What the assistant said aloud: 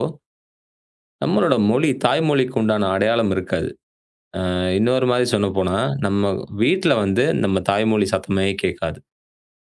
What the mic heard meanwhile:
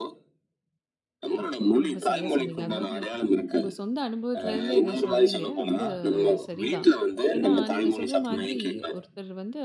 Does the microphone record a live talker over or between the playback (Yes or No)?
Yes